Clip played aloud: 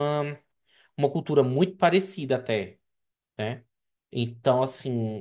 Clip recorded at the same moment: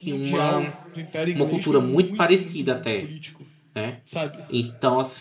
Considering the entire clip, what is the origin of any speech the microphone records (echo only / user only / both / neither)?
both